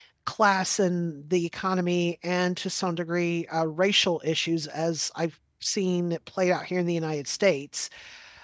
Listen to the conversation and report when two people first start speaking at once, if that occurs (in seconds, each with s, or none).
none